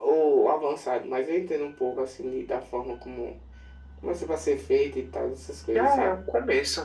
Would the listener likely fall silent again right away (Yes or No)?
No